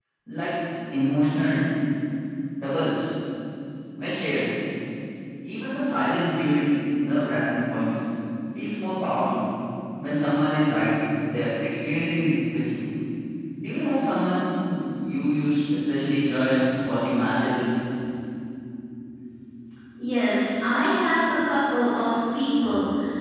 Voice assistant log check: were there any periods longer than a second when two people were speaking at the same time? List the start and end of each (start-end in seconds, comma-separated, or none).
none